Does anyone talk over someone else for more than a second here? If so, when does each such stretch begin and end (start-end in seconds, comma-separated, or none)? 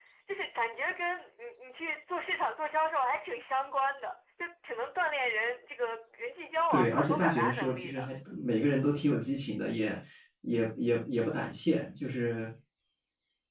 6.7-8.1